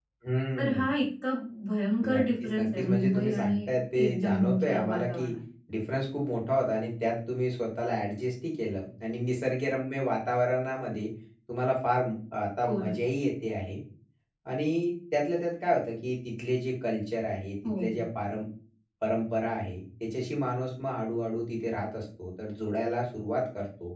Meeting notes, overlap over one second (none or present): present